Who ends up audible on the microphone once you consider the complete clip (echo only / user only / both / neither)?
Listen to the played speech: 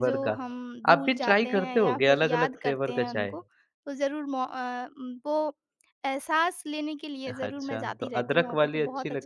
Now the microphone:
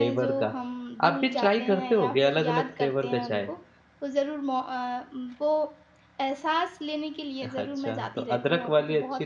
echo only